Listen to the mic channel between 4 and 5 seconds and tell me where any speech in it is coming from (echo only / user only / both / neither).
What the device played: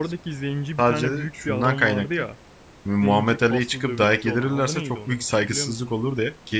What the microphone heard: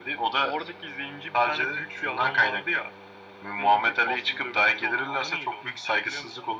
echo only